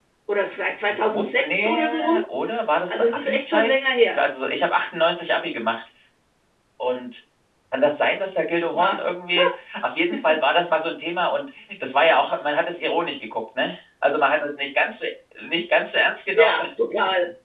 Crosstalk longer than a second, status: present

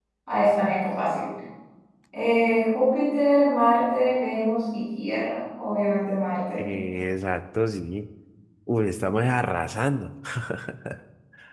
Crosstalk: none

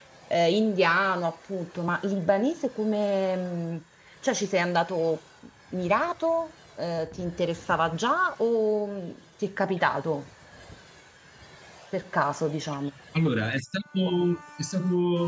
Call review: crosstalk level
none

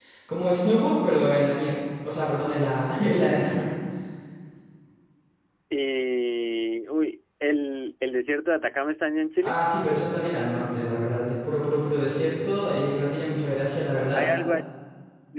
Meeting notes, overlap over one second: none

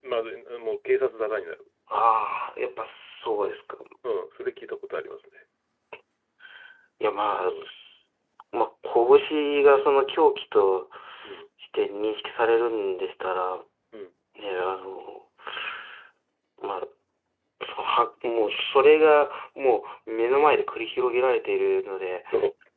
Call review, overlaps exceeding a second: none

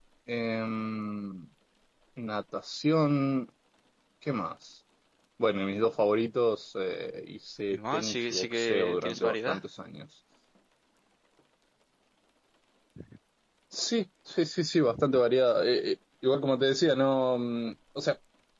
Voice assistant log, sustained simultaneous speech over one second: present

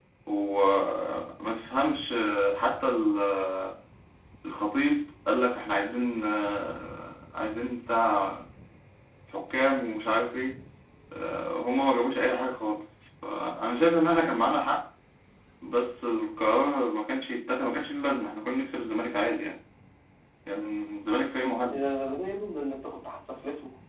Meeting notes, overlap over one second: none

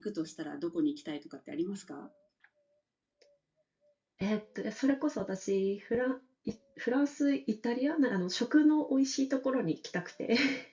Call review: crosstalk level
none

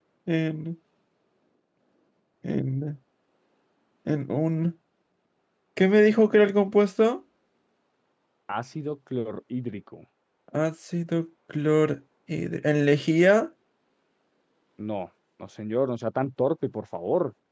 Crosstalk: none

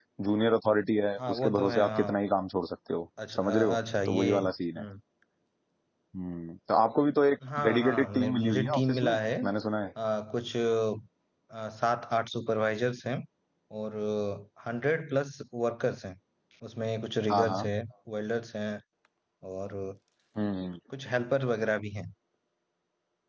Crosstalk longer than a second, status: present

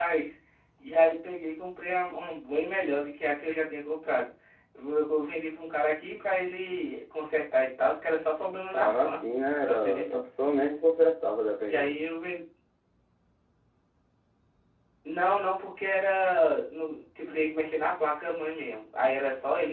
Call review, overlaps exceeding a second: none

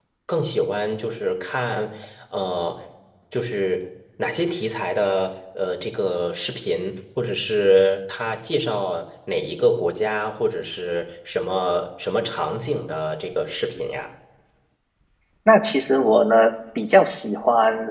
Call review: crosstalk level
none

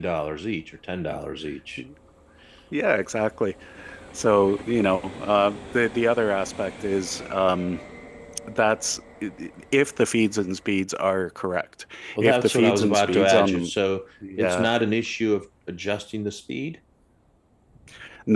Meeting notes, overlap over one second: present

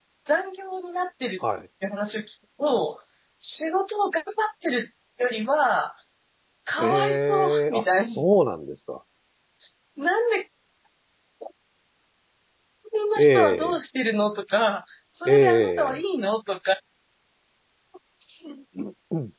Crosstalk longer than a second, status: present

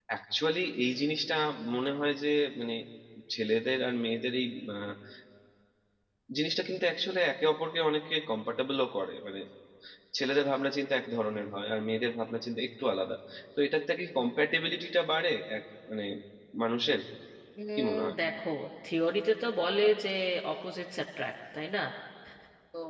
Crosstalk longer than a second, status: none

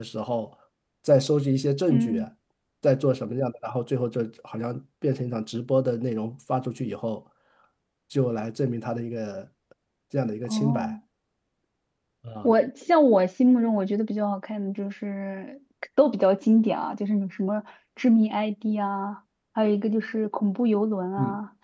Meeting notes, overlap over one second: none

